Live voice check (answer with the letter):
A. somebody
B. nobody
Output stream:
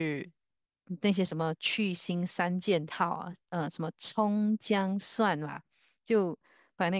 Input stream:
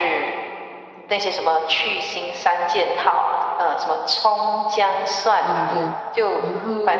A